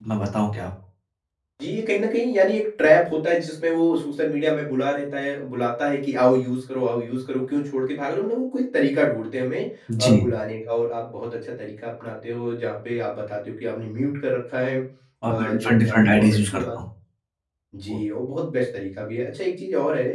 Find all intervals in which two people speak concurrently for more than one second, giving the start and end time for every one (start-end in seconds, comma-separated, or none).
15.2-16.8